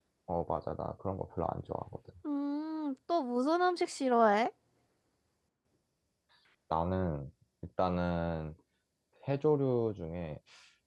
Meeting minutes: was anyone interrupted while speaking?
No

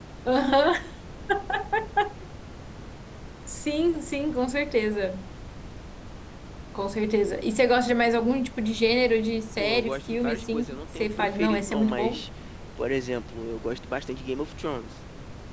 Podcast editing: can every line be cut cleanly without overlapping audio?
No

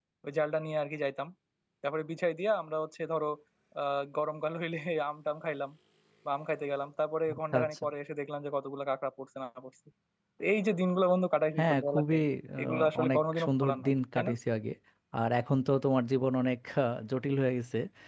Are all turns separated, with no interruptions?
No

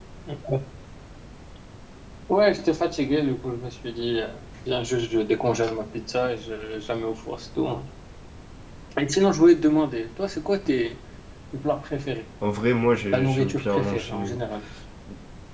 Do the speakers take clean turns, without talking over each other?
No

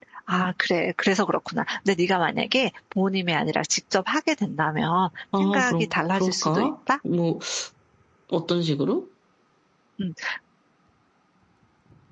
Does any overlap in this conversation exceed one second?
Yes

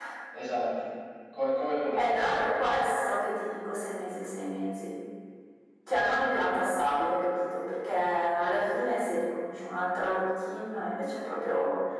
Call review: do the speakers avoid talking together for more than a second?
Yes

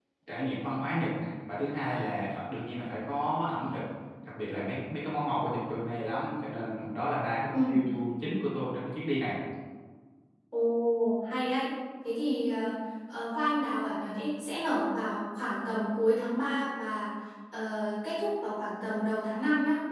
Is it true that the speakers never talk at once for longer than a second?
Yes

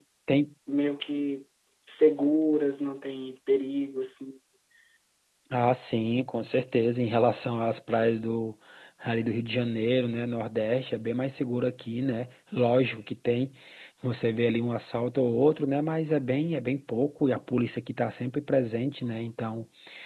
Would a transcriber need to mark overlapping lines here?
No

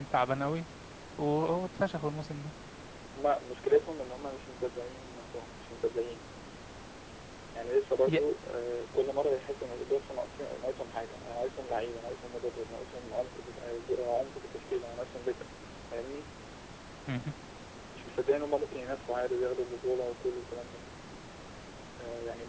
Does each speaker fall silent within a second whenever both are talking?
Yes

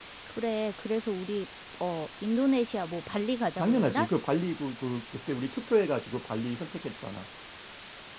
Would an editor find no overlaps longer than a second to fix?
Yes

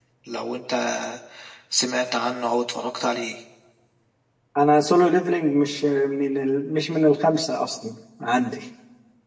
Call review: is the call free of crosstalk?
Yes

